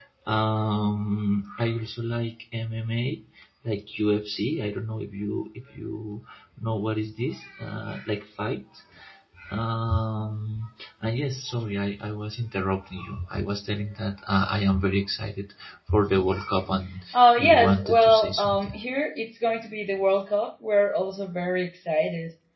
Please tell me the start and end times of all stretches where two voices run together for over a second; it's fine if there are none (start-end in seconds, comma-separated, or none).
17.1-18.7